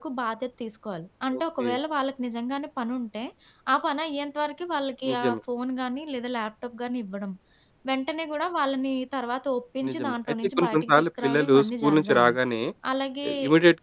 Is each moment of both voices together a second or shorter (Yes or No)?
No